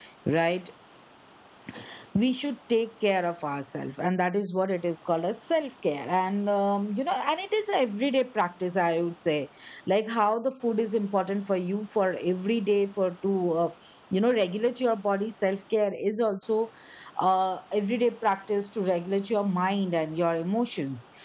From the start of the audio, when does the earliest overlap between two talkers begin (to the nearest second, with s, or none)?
none